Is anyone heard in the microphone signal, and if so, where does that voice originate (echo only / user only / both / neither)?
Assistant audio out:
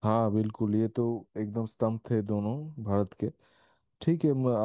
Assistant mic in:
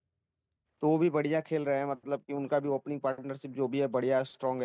user only